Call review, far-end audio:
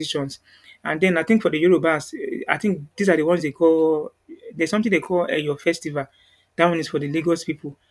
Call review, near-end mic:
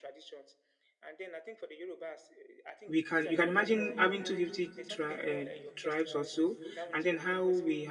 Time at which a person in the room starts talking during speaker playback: 2.9 s

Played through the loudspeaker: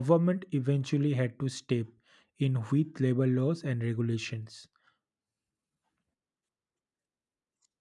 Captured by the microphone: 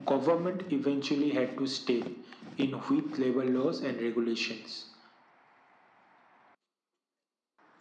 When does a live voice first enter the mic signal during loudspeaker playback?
none

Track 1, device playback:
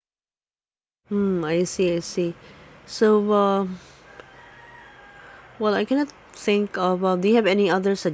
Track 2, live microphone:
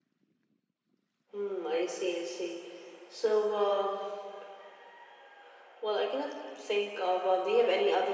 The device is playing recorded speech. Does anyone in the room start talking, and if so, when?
none

